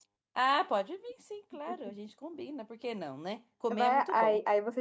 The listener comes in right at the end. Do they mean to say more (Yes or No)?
Yes